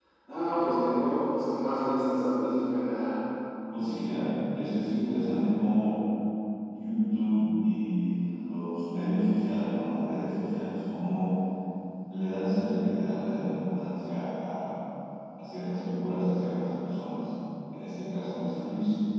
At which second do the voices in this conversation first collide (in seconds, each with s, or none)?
none